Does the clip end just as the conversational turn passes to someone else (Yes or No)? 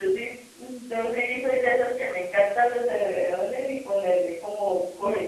Yes